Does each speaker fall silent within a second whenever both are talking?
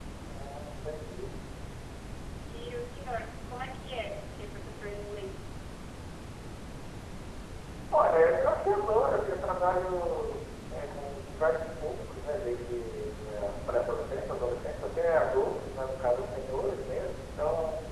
Yes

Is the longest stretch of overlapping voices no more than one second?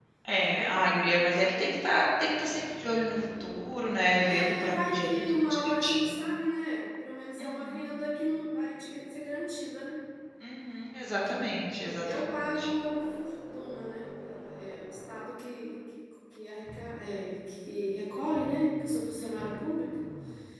No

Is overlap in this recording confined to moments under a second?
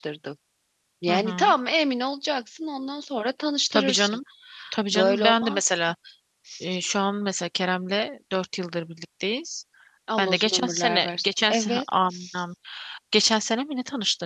No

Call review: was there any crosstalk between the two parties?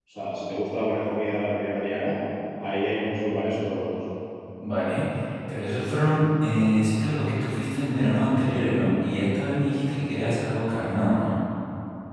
No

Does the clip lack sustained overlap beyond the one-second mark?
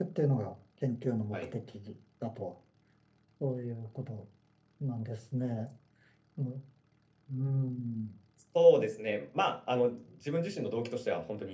Yes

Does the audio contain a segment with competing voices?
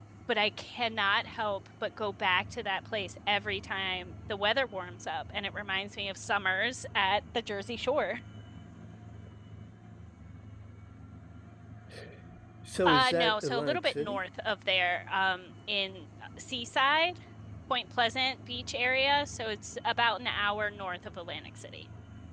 Yes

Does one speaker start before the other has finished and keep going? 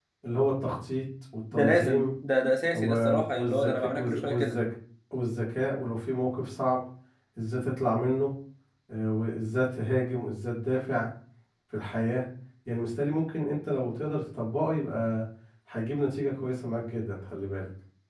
Yes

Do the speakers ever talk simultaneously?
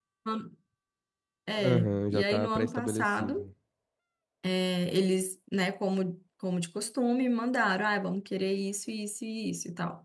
Yes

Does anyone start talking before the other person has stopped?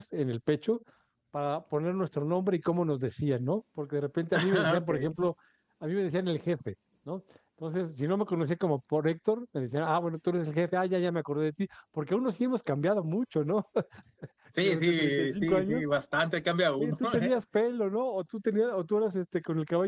Yes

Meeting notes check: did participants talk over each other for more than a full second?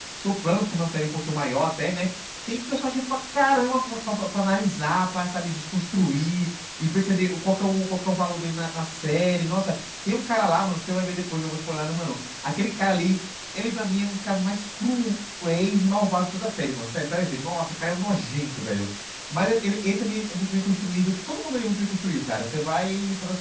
No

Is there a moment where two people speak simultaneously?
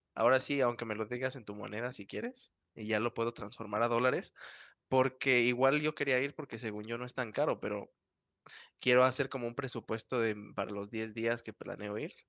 No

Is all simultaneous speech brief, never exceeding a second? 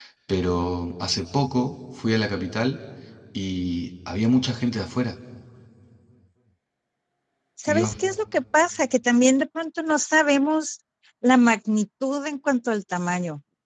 Yes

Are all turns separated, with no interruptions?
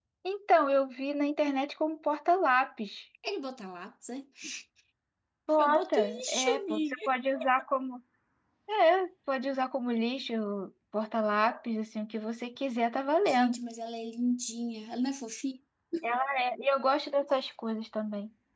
No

